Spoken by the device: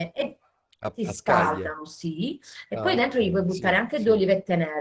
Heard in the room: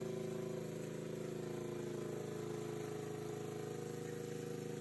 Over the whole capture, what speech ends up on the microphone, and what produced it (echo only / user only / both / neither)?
neither